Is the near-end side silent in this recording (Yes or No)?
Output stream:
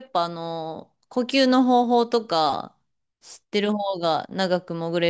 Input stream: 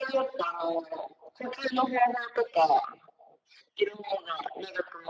Yes